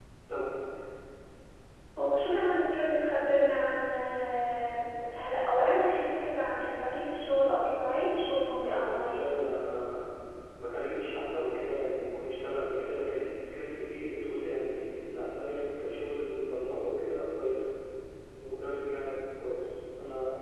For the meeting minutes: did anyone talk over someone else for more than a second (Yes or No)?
No